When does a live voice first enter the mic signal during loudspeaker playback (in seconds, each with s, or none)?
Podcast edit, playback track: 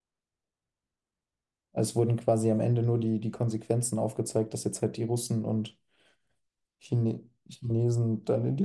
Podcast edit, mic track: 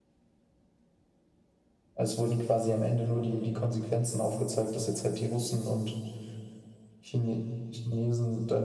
none